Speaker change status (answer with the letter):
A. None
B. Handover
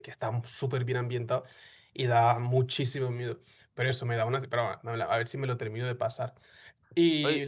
A